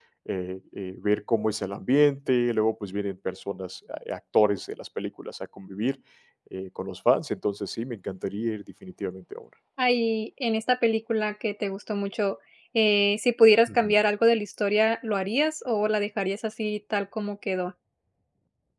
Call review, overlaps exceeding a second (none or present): none